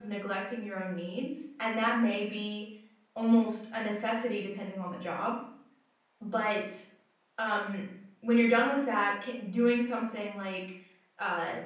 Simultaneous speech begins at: none

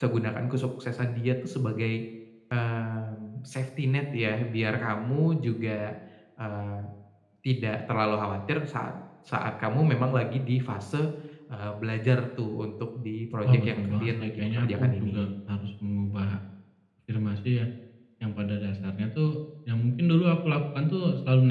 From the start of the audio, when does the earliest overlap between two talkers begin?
13 s

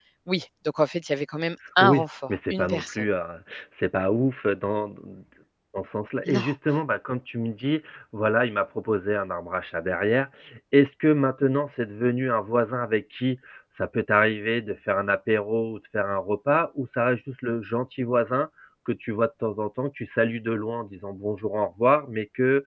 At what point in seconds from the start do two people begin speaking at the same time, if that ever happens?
2 s

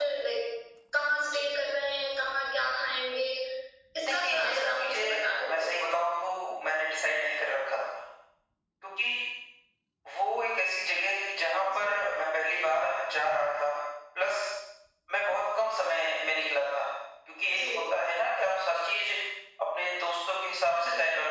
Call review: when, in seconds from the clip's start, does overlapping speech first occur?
4 s

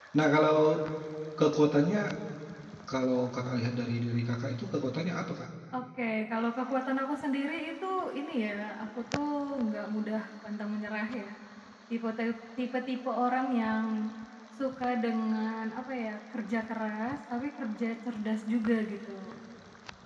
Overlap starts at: none

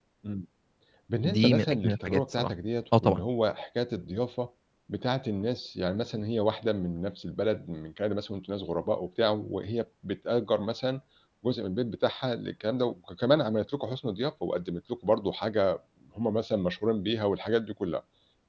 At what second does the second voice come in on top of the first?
1 s

